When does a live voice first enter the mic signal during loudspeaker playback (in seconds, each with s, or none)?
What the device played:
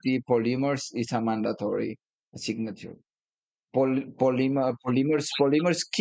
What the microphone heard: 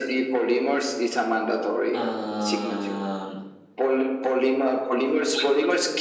1.9 s